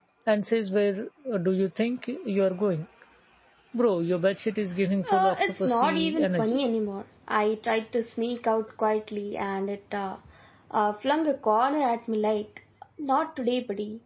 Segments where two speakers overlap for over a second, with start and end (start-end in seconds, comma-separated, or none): 5.1-6.6